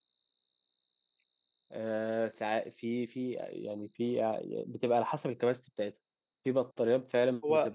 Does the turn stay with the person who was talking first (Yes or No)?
No